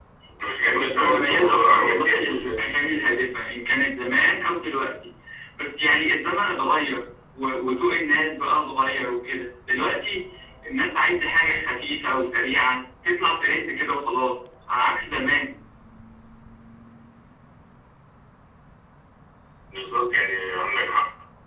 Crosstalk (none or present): present